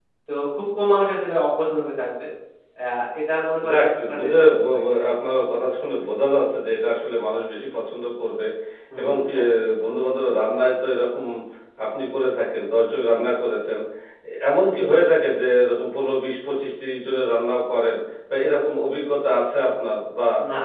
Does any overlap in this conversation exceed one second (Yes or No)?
Yes